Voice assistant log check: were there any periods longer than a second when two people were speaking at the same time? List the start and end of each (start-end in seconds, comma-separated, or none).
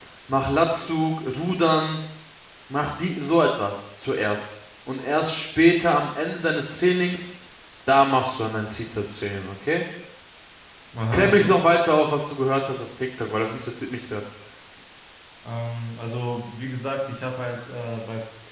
none